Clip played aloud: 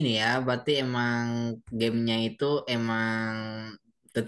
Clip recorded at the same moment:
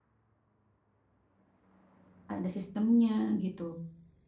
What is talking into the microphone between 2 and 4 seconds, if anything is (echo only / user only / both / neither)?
user only